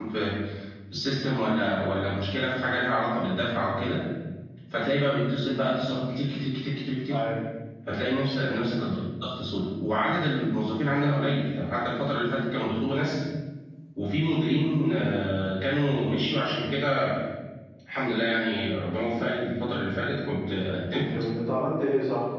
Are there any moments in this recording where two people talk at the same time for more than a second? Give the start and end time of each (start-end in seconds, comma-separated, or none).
none